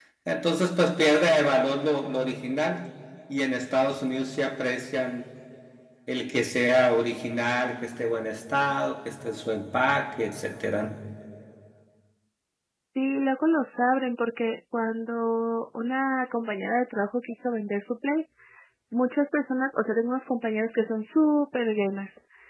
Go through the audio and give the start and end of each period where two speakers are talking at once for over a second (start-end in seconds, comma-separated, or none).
none